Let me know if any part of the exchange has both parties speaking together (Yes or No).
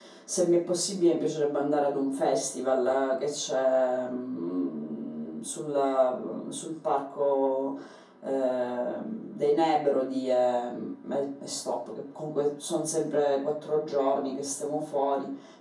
No